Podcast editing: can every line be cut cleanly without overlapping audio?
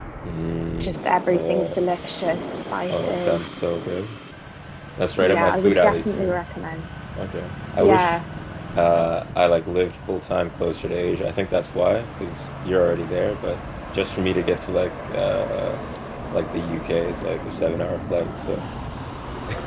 No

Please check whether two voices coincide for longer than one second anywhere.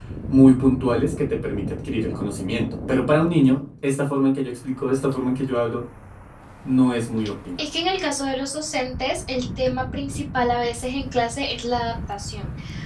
No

